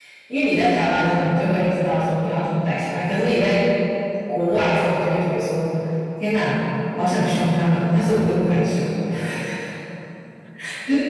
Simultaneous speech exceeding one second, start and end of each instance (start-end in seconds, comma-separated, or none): none